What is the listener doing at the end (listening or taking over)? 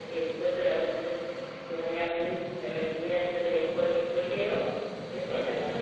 listening